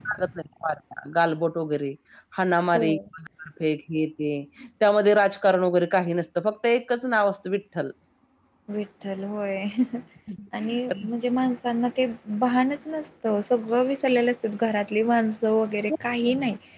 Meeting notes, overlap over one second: none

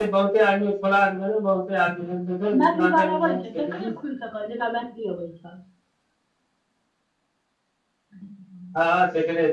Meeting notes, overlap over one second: present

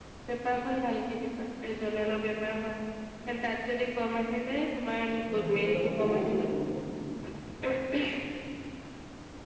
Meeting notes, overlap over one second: present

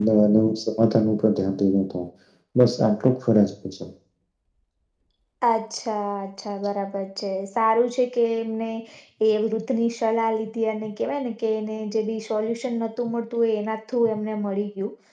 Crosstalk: none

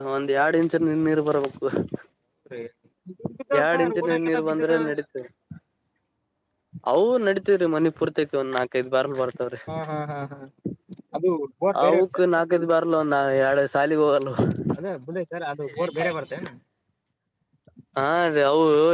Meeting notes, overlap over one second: present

